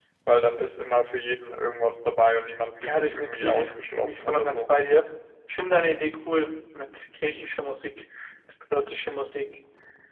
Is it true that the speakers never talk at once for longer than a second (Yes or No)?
No